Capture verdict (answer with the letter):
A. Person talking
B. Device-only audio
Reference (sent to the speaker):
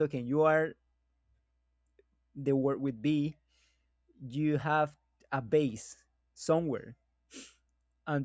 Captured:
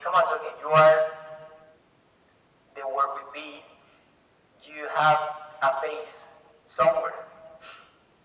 B